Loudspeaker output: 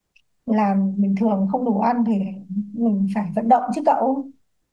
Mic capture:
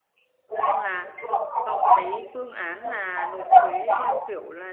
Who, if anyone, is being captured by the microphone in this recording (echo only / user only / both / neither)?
both